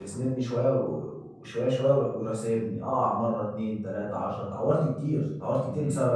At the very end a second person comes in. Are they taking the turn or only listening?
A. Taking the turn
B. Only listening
A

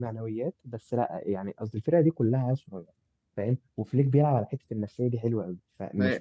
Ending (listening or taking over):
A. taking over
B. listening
B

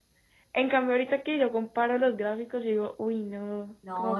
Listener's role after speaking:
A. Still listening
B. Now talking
B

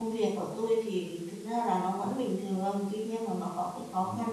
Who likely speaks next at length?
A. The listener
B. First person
B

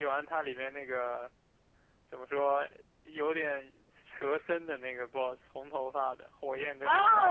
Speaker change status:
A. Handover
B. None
A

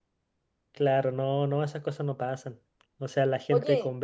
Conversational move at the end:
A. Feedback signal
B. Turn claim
A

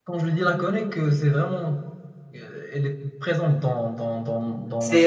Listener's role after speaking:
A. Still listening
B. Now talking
B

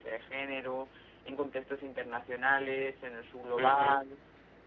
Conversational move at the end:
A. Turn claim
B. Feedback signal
B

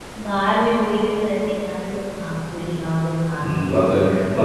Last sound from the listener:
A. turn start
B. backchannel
A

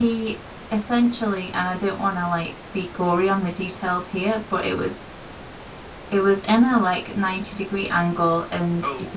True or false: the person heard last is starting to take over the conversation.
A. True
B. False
B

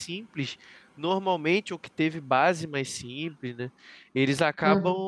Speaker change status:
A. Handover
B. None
B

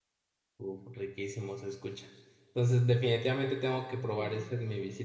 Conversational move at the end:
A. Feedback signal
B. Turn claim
A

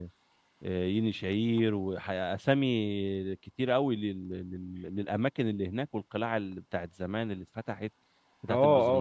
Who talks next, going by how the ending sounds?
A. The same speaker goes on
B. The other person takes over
B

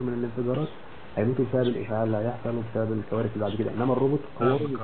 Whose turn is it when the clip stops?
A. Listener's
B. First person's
B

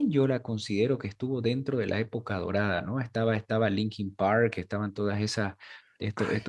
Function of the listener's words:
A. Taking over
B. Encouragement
B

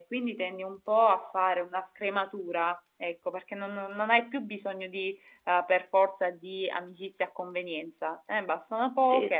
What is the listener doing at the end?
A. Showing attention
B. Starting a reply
A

